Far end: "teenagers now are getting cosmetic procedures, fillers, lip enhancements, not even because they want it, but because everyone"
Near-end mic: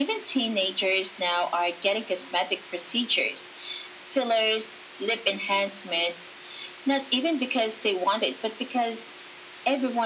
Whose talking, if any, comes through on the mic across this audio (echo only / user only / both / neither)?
echo only